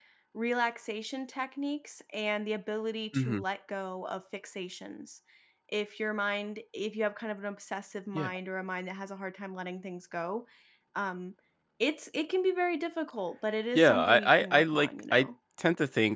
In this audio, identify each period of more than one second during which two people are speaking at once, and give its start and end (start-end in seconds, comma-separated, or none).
13.8-15.3